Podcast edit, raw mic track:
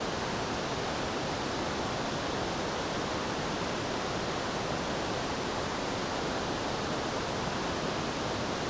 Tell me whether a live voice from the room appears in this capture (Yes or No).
No